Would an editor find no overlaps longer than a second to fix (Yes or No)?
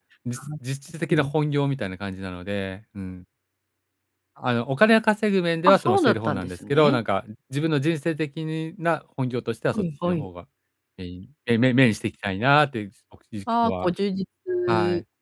No